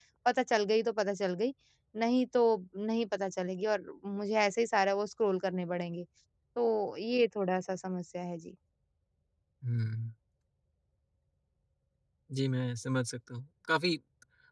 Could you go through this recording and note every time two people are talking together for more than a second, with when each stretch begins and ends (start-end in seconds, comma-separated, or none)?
none